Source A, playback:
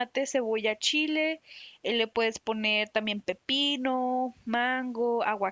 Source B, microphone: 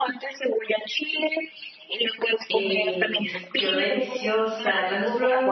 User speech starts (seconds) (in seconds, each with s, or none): 2.5 s